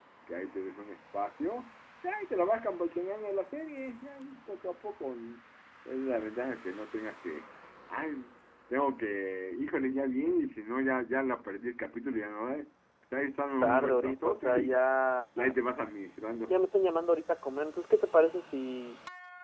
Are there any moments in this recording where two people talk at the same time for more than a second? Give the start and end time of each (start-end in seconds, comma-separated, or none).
13.6-14.8